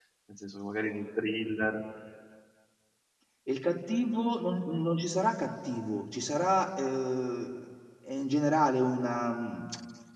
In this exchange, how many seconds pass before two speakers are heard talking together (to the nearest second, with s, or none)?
none